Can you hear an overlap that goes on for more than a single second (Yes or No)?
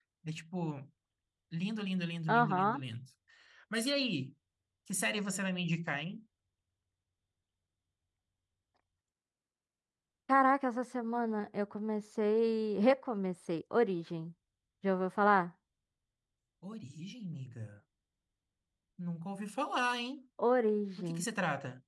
No